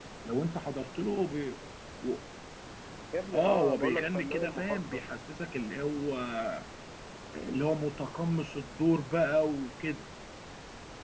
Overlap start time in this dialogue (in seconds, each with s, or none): 3.3 s